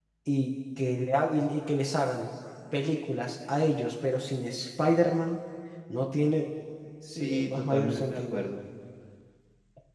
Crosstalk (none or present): present